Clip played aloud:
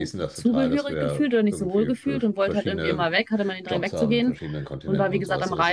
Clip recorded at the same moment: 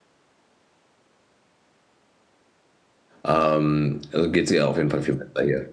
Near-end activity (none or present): present